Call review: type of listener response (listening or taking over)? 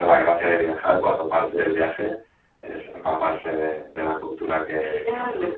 taking over